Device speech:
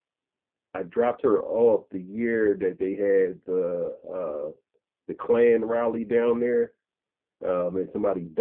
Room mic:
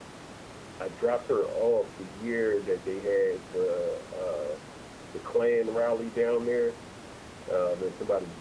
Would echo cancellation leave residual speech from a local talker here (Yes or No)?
No